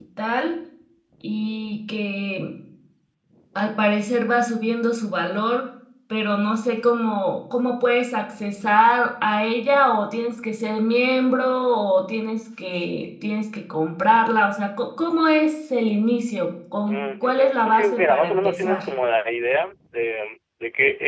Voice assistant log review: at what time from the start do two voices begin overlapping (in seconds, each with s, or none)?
16.9 s